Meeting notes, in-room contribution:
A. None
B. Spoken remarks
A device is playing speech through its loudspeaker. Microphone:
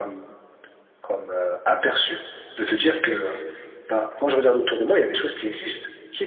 A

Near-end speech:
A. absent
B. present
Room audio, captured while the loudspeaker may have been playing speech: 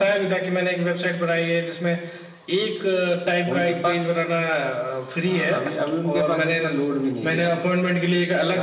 A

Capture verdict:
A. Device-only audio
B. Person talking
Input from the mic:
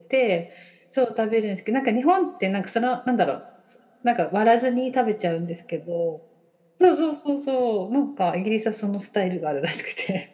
A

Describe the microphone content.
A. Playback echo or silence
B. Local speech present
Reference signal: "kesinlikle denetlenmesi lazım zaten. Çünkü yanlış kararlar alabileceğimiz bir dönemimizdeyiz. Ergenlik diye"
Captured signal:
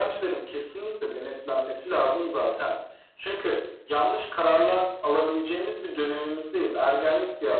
A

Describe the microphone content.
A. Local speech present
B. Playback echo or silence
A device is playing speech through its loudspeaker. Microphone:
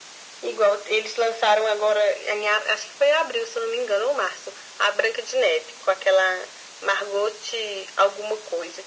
B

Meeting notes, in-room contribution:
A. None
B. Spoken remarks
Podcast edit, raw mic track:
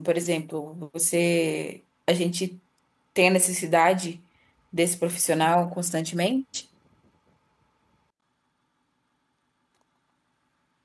B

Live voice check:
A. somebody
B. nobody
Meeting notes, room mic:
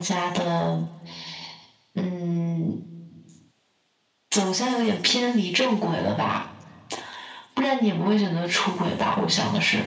B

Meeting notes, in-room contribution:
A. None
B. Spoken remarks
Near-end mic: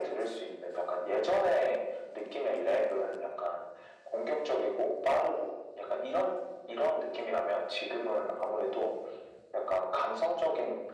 A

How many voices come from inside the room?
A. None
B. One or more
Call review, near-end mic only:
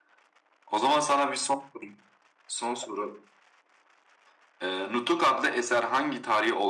A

